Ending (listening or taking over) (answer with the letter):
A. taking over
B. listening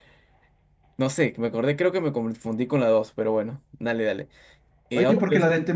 A